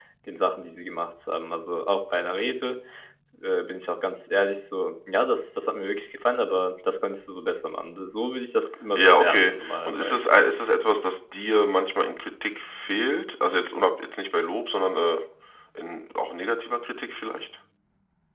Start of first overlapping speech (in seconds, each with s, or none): 8.9 s